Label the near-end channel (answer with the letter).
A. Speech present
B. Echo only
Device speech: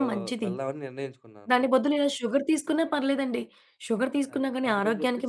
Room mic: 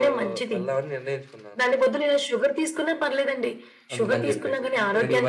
A